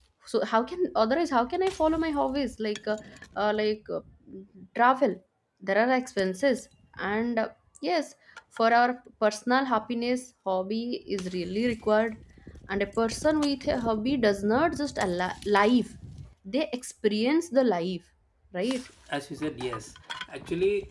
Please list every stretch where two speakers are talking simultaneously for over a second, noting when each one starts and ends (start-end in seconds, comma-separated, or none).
none